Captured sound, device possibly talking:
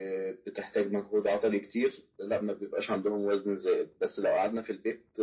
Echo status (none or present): present